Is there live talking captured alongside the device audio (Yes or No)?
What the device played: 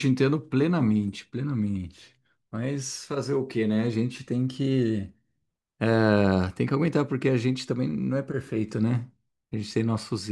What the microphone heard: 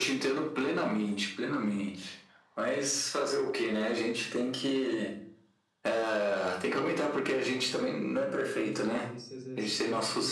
Yes